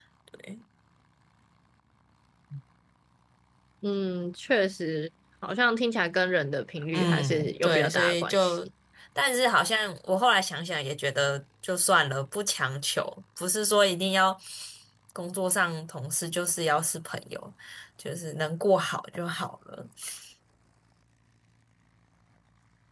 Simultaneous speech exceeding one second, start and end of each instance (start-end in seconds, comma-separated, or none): 6.9-8.7